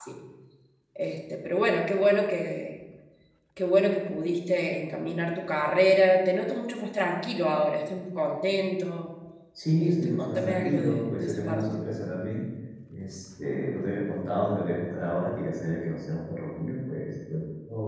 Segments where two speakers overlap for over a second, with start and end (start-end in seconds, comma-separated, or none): 9.8-11.8